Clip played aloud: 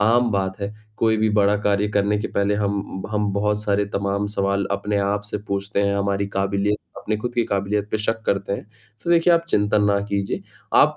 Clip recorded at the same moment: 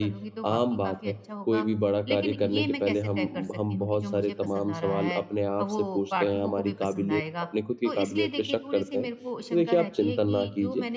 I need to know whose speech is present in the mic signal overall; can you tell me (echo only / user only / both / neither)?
both